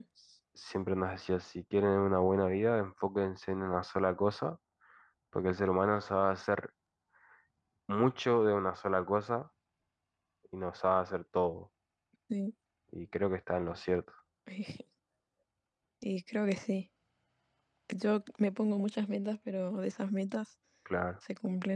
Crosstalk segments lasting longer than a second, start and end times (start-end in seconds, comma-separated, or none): none